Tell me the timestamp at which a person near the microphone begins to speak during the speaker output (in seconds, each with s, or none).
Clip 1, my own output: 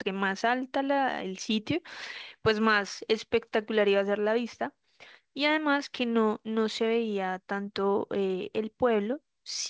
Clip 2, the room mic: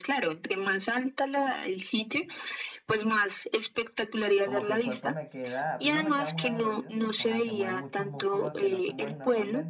4.4 s